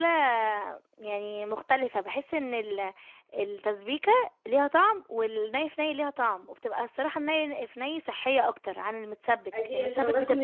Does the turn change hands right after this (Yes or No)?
Yes